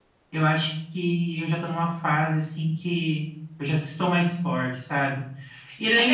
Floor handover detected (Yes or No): Yes